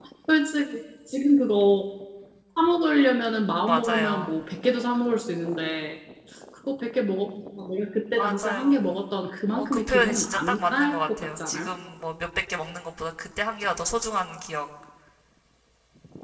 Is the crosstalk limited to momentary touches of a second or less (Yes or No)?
No